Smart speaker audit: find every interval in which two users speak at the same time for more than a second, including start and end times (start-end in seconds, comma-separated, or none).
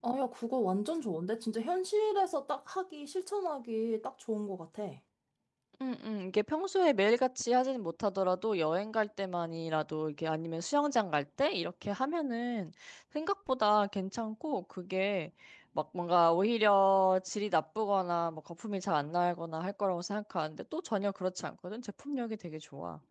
none